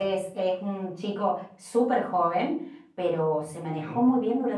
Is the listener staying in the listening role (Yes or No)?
Yes